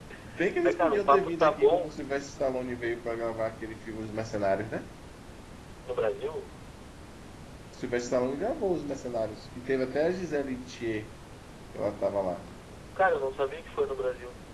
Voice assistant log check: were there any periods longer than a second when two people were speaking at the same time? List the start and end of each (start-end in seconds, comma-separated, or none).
0.6-1.9